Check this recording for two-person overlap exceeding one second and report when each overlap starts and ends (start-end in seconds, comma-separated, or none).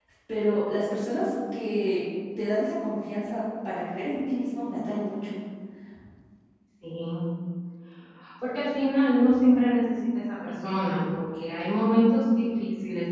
none